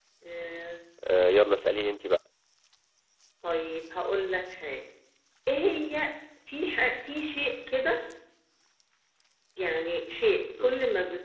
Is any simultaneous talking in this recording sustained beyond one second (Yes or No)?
No